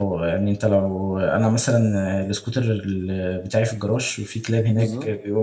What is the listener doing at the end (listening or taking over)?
listening